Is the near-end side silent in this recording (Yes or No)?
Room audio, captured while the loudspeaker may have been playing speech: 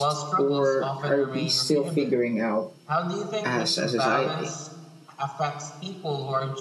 No